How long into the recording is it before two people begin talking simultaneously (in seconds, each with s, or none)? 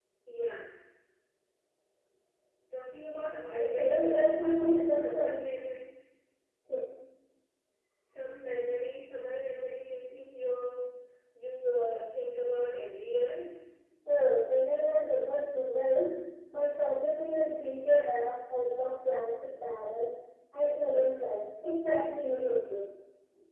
3.6 s